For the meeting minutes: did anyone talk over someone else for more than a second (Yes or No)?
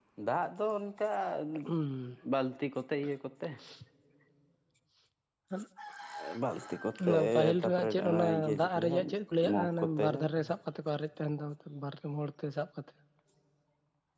Yes